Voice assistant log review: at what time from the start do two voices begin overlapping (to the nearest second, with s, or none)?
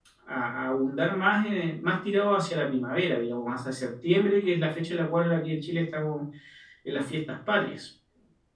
none